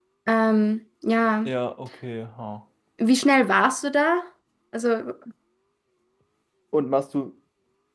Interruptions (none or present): none